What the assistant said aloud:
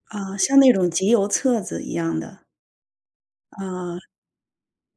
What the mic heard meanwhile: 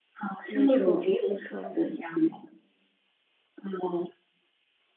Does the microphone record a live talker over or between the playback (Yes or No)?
Yes